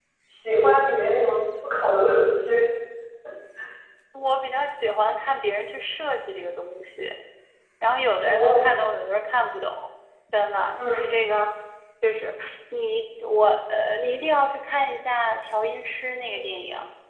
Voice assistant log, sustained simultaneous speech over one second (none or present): none